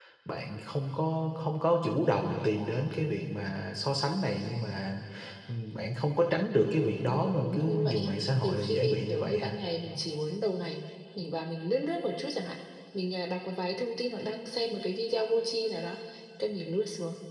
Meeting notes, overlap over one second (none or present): present